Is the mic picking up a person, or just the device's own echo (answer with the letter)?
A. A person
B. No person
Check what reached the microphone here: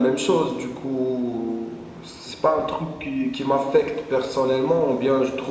B